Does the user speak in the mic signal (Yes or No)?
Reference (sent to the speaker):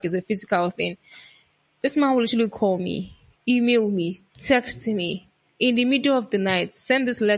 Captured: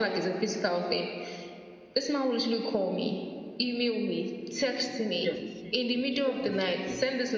Yes